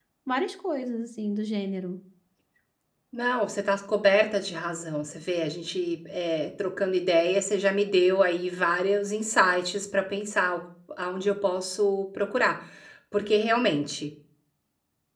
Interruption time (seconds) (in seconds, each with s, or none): none